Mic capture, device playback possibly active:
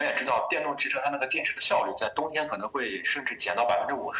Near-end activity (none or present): none